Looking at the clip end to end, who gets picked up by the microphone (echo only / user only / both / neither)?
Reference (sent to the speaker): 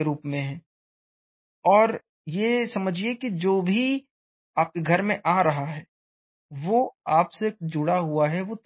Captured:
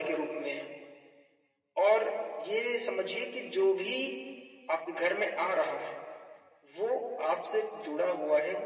echo only